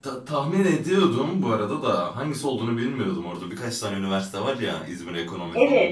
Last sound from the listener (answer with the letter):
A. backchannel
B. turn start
B